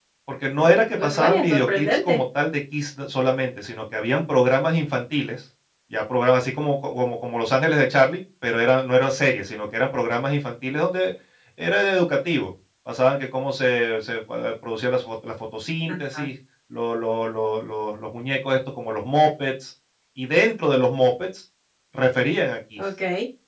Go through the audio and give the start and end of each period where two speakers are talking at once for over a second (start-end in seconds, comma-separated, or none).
0.6-2.2